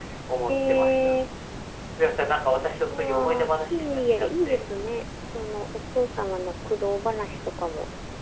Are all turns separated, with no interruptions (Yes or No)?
No